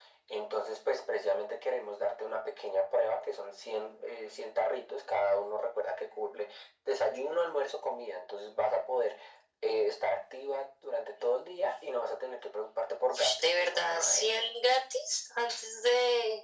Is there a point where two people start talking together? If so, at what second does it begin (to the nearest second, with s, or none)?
13 s